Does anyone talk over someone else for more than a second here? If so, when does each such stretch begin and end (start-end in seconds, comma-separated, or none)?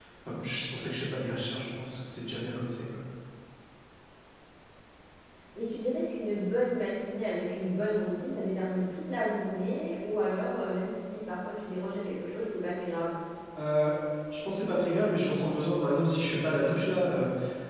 none